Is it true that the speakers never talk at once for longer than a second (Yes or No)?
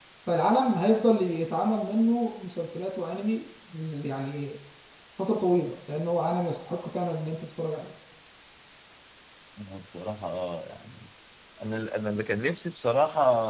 Yes